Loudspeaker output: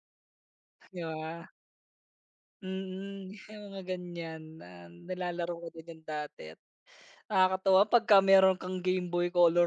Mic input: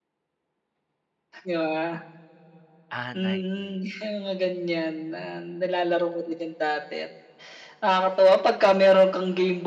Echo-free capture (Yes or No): No